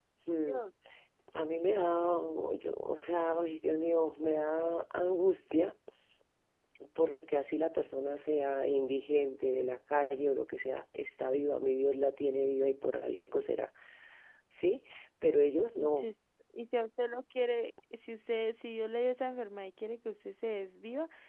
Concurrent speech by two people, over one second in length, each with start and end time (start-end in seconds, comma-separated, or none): none